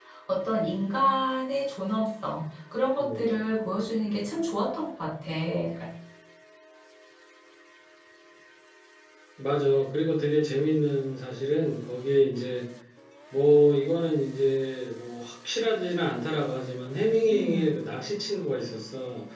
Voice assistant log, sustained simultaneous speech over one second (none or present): none